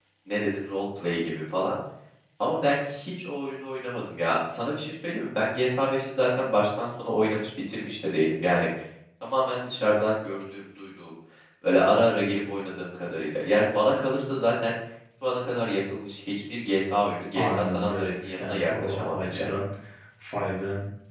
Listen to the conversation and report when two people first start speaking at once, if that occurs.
17.4 s

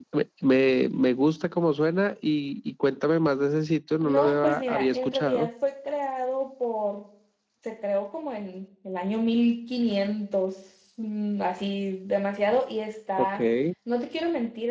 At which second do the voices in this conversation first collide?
4.0 s

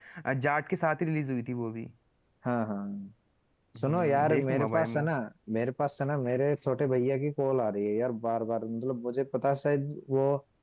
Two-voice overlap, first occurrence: 3.9 s

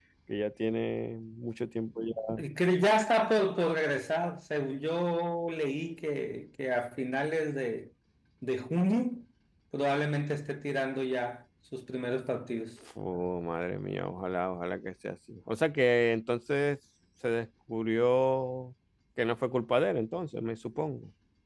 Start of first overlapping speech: none

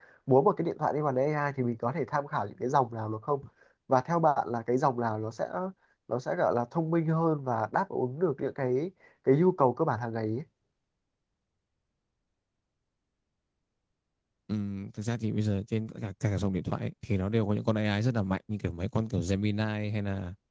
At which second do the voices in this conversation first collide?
none

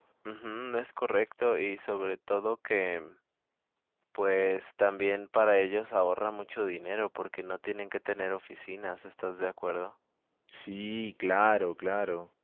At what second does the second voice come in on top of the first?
none

